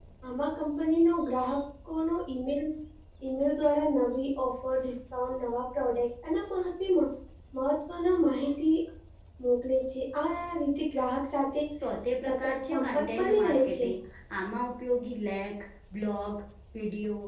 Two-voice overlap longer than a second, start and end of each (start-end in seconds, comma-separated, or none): 12.2-13.9